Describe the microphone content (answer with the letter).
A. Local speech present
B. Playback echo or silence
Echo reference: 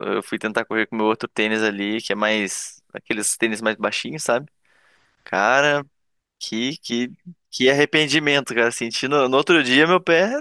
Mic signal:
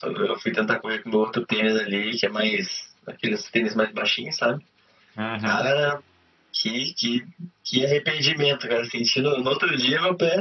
A